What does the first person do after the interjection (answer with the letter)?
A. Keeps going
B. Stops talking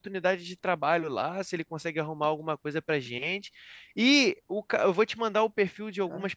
A